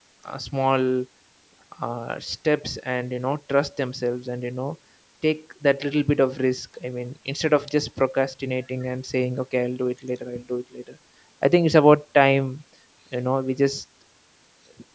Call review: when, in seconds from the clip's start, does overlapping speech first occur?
none

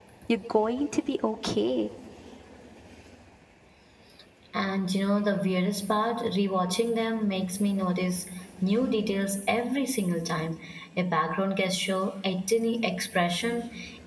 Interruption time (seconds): none

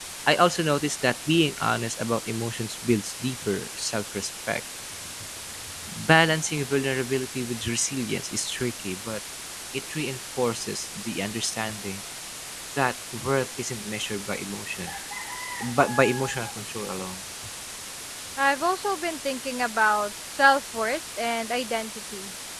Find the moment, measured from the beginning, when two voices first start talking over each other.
none

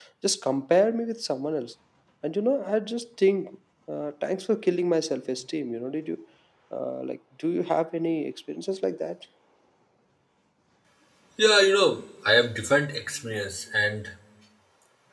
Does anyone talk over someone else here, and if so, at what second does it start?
none

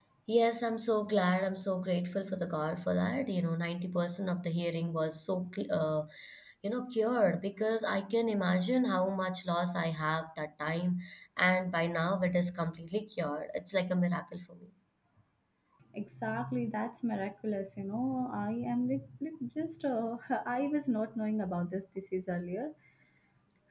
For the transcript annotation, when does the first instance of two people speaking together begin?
none

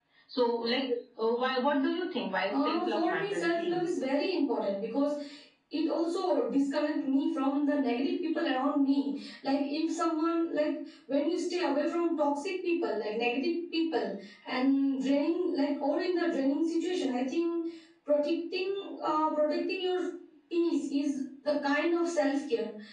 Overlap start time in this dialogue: 2.5 s

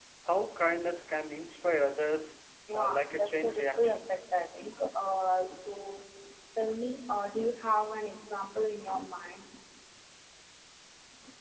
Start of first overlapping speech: 2.7 s

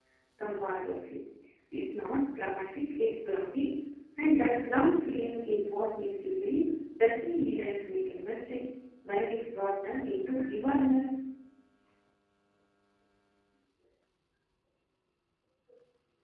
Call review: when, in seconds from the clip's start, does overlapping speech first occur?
none

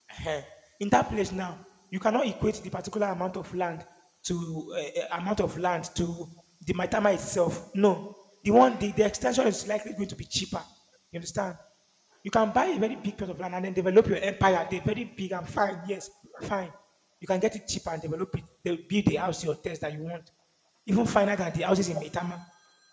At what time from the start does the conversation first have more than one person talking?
none

